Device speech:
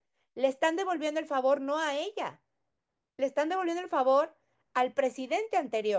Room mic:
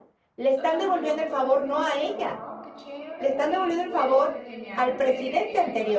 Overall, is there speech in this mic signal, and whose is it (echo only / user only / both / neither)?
both